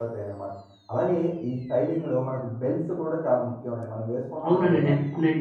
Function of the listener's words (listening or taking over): taking over